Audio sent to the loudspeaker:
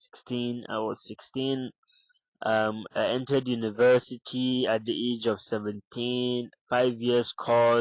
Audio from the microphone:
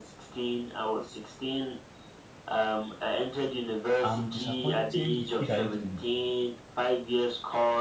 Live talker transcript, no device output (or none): I'm disappointing the kid I used to be.